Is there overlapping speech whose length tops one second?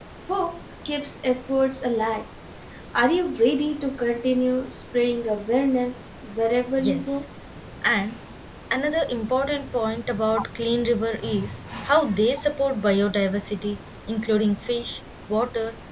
No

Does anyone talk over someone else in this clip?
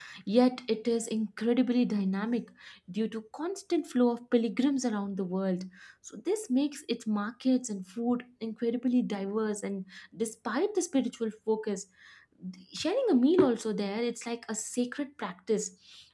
No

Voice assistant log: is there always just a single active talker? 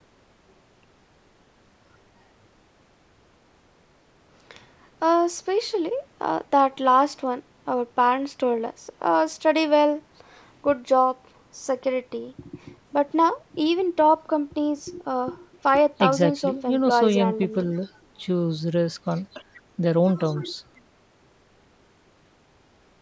No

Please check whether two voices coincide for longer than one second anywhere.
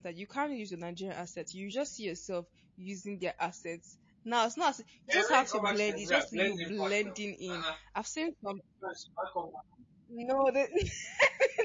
Yes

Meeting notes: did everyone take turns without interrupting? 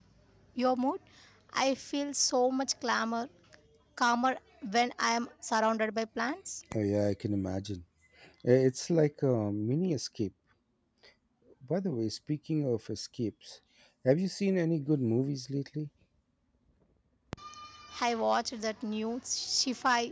Yes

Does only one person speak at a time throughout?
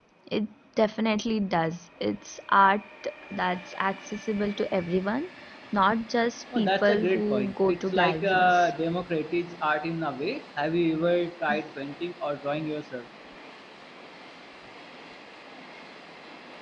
No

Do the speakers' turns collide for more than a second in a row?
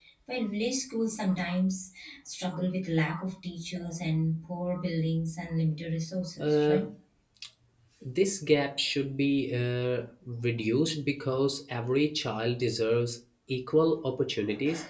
No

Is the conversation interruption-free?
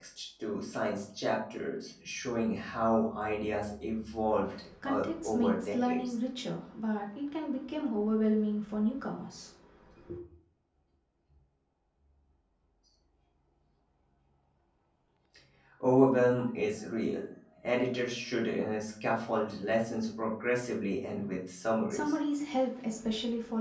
No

